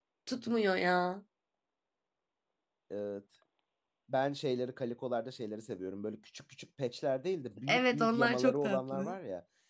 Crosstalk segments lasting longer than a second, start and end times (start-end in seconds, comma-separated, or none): 7.7-9.1